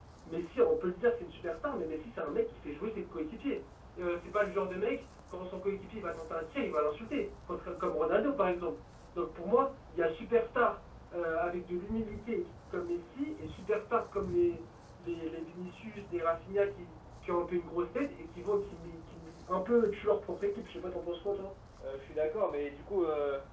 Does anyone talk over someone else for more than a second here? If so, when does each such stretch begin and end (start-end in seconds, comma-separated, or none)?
none